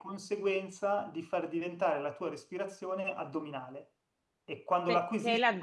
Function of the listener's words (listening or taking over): taking over